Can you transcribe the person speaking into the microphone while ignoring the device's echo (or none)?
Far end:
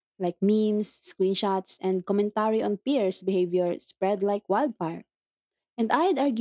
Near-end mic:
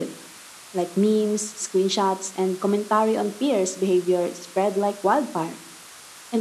none